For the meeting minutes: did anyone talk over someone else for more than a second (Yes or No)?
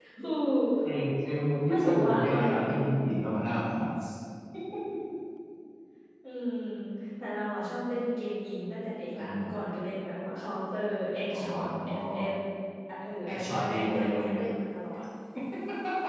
Yes